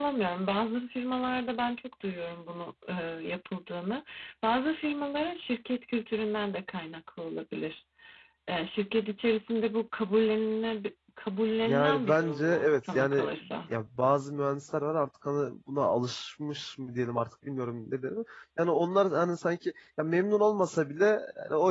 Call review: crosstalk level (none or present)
present